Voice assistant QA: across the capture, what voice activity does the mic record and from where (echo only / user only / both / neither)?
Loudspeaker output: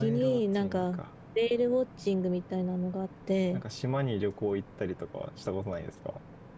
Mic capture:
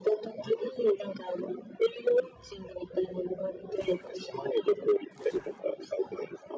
echo only